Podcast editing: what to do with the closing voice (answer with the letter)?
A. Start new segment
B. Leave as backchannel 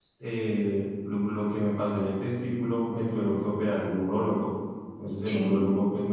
B